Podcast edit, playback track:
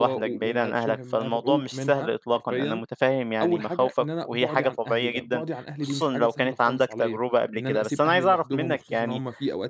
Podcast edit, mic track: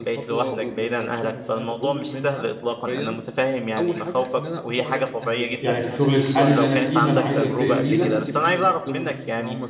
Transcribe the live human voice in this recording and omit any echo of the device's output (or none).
يعني في شغلي الحالي اللي أنا فيه، اللي أنا عايز أنتقل ليه ده،